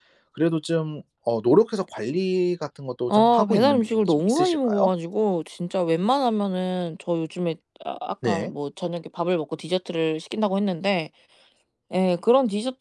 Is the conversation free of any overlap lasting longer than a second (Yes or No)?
No